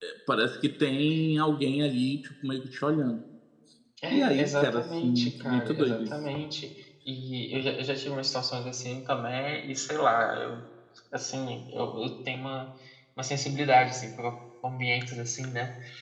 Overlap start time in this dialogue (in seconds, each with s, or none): 4.1 s